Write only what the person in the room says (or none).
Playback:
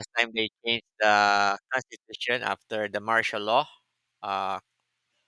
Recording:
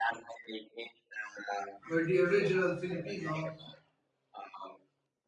where the original Filipino